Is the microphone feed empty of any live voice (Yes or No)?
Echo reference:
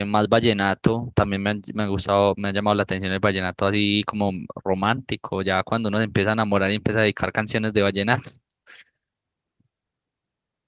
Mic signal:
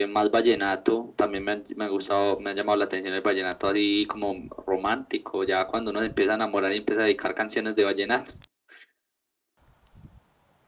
Yes